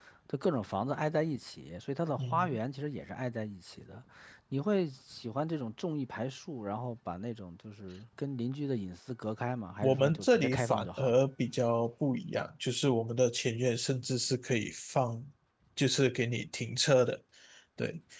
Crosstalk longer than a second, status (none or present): present